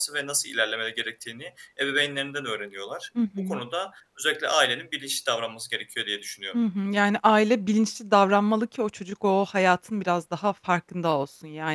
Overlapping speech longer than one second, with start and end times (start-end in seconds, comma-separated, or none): none